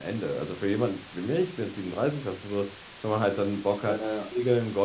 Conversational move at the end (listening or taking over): listening